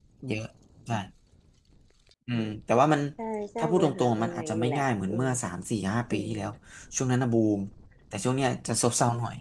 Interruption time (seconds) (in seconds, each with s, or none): 3.6 s